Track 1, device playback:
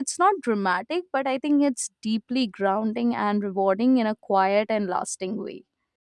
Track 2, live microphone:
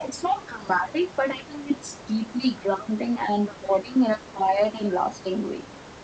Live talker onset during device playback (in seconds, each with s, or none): none